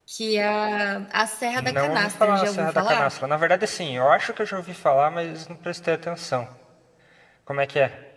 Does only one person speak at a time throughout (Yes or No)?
No